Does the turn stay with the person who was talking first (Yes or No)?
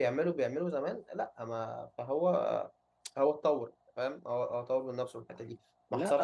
No